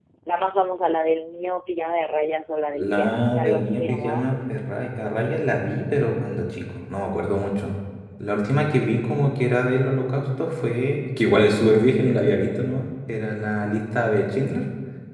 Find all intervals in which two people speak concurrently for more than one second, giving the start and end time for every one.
2.7-4.2

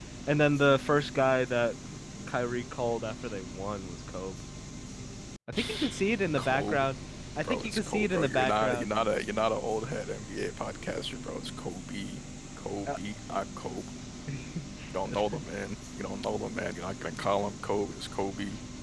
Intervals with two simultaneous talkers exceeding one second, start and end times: 7.4-8.9

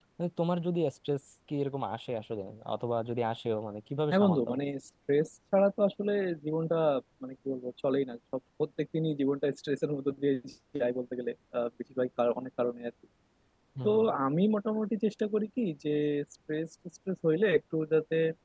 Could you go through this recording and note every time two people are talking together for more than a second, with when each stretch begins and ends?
none

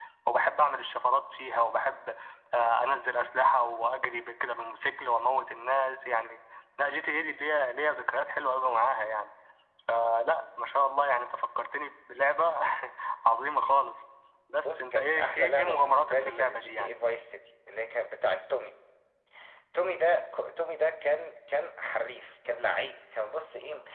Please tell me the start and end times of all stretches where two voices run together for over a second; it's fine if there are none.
14.7-16.9

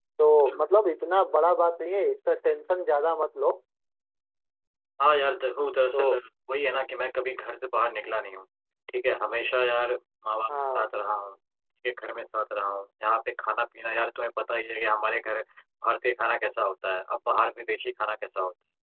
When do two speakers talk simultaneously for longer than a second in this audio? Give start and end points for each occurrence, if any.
none

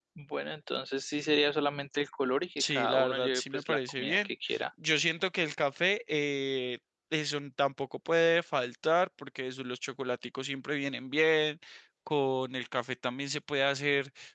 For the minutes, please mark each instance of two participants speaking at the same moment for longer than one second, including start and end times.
2.6-4.3

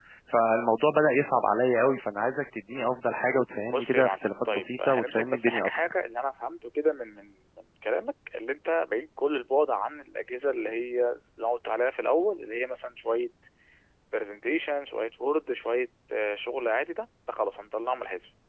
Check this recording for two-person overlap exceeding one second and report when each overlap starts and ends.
3.7-5.9

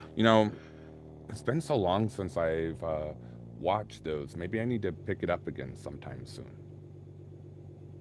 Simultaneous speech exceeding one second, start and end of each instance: none

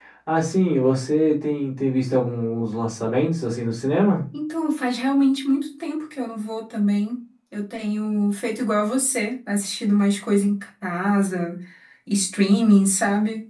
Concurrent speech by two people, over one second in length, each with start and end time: none

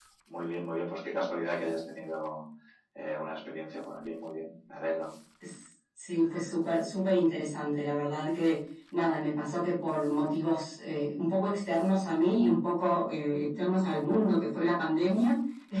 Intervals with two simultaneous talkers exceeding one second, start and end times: none

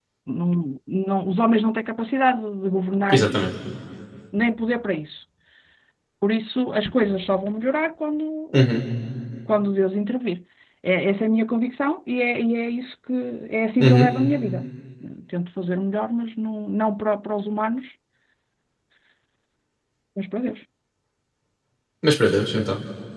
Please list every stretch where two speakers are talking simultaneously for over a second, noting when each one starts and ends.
none

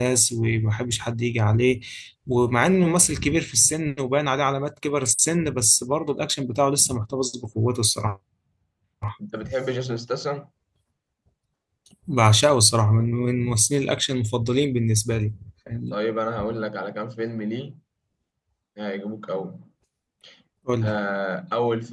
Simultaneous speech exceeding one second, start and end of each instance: none

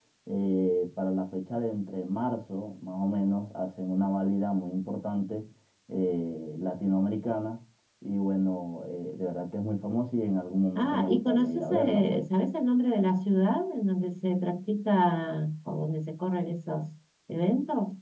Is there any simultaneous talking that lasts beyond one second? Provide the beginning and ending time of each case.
10.8-12.2

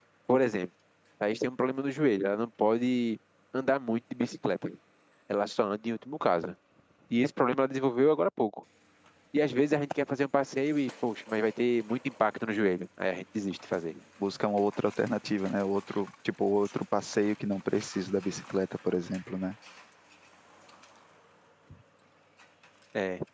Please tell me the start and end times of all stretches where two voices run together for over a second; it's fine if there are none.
none

